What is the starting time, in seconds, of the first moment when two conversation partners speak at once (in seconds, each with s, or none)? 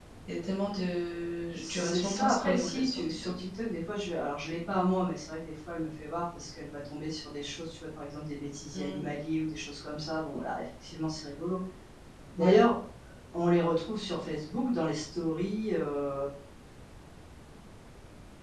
1.6 s